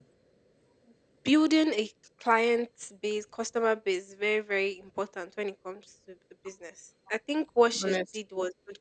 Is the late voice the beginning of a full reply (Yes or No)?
No